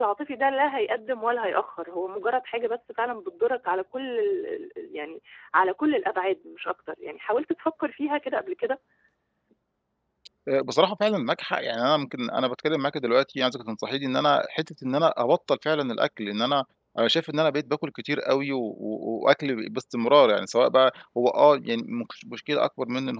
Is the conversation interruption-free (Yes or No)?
Yes